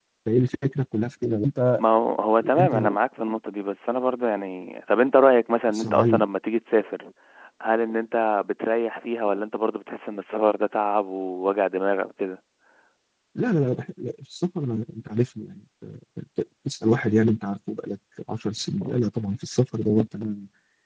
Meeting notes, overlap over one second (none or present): none